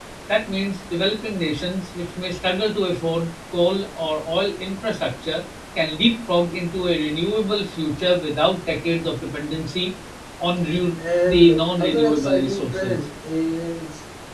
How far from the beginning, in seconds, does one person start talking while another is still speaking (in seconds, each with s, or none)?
11.2 s